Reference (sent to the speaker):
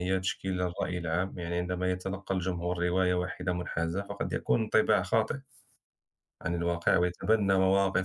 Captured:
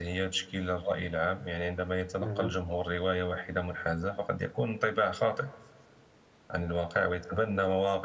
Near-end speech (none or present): present